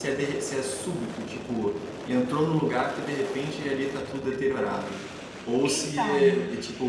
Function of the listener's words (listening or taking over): listening